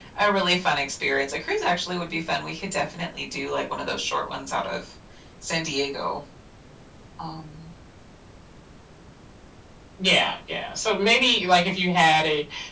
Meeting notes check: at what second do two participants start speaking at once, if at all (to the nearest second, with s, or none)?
none